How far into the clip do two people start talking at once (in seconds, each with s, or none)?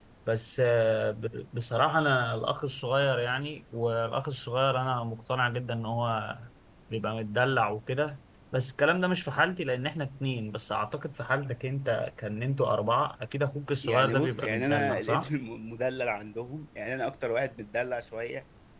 13.8 s